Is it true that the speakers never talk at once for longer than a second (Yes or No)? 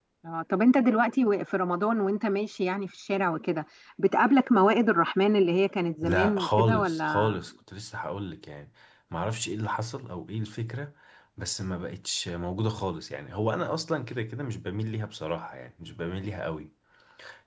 No